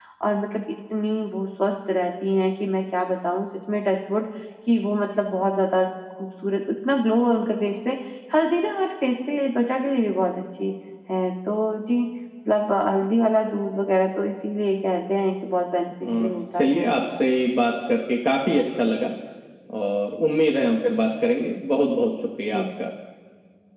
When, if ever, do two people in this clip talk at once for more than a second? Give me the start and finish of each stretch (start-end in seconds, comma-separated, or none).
none